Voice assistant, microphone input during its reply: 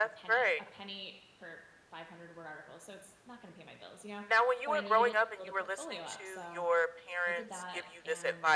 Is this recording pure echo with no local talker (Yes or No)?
No